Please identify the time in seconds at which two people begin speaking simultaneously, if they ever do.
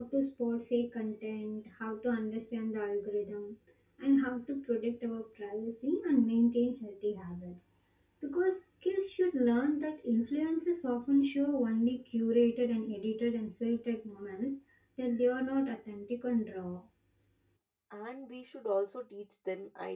none

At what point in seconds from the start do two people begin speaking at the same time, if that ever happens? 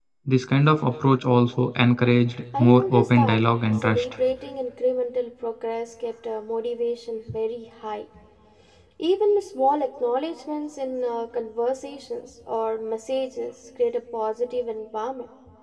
2.5 s

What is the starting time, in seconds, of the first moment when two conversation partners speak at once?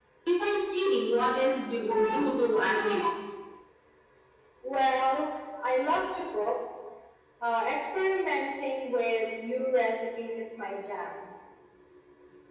none

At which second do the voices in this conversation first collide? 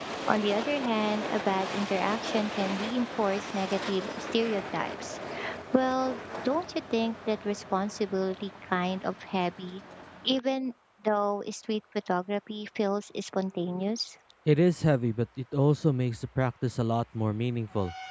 none

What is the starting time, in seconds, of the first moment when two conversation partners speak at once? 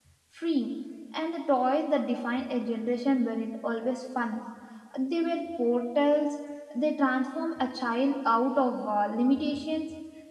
none

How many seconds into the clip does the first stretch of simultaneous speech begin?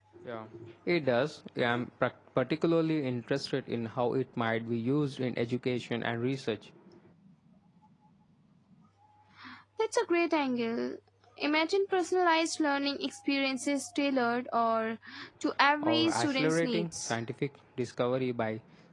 15.8 s

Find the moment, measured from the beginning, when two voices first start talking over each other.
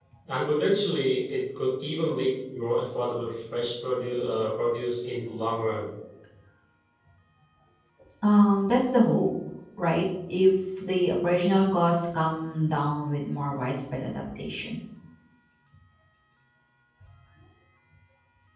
none

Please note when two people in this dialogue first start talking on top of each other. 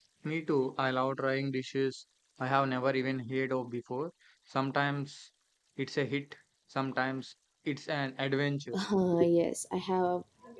none

